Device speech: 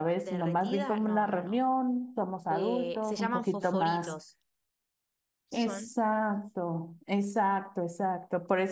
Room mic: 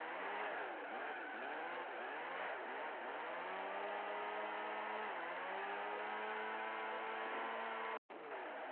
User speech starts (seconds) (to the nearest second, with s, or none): none